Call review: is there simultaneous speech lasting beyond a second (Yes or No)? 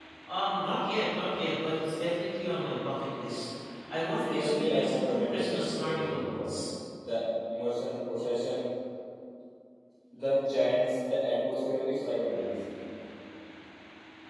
Yes